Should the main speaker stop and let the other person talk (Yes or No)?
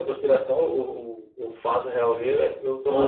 Yes